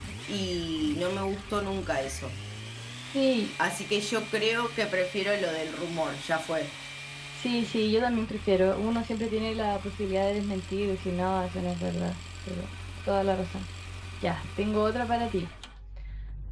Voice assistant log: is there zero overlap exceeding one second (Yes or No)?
Yes